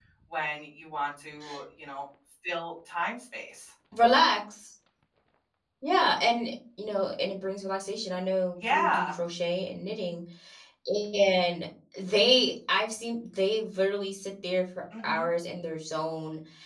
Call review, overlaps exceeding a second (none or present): none